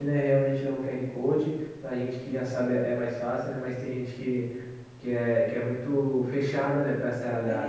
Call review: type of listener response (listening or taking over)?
taking over